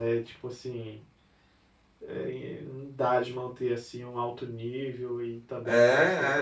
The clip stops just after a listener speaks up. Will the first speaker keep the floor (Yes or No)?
No